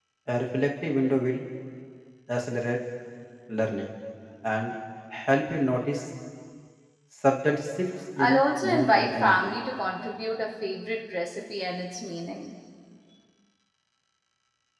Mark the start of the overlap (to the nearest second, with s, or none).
8 s